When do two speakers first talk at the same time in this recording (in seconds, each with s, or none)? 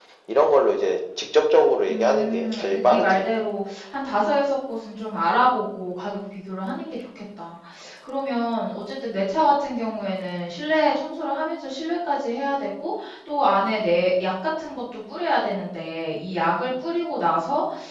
1.9 s